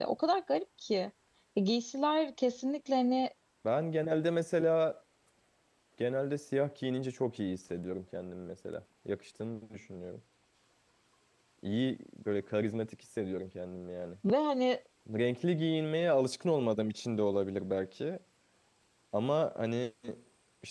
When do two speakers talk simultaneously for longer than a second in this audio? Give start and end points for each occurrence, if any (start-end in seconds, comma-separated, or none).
none